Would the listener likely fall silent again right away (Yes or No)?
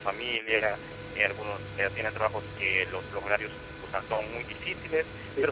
Yes